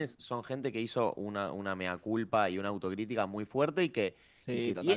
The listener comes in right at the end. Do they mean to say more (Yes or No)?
No